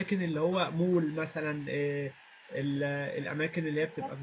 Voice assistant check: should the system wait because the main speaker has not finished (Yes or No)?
Yes